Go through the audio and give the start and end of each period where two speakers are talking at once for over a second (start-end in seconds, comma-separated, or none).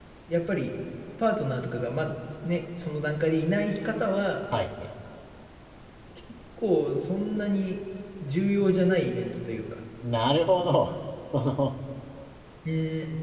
none